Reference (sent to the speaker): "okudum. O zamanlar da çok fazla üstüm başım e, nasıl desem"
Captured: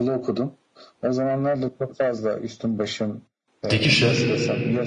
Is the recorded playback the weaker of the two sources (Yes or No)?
Yes